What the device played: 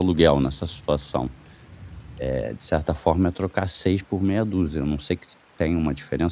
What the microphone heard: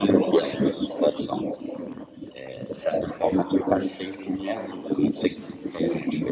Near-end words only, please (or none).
none